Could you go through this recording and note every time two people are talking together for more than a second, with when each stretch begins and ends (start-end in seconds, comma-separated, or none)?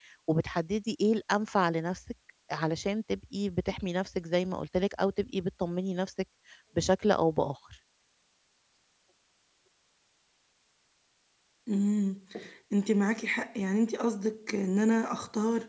none